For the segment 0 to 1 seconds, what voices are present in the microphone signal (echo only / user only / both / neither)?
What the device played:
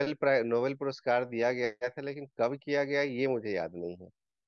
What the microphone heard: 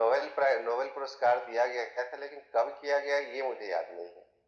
echo only